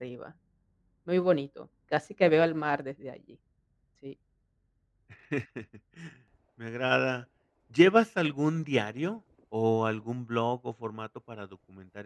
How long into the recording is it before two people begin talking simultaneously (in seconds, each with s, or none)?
none